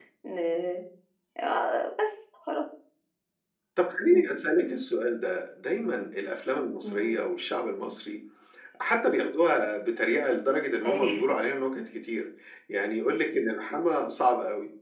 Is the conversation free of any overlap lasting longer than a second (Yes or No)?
Yes